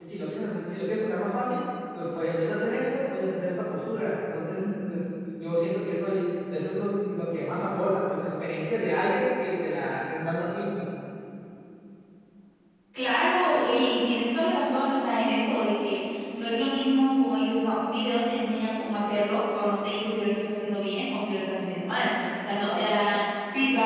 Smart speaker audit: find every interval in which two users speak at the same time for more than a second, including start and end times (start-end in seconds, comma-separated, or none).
none